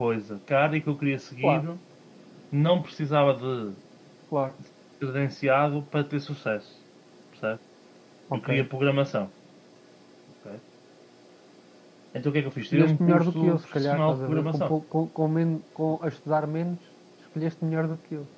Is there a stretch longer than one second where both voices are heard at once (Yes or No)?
Yes